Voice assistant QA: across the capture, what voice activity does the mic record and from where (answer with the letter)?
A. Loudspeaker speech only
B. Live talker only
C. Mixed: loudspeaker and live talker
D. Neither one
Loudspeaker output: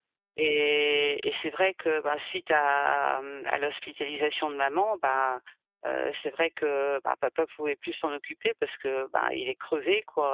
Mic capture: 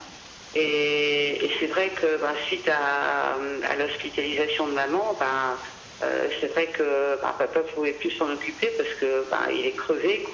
A